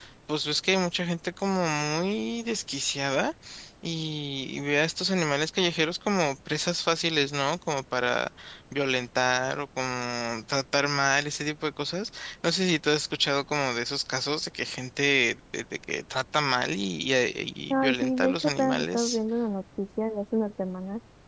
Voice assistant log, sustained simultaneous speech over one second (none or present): present